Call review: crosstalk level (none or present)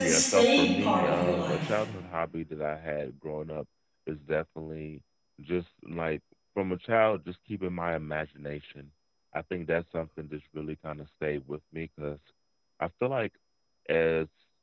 present